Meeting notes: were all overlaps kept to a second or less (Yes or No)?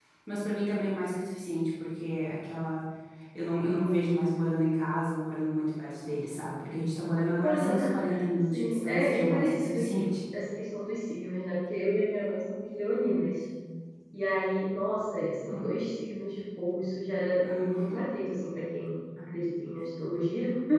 No